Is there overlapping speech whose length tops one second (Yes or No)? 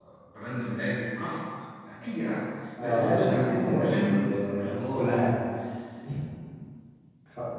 Yes